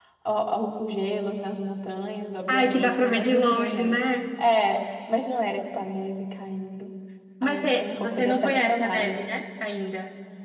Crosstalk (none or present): present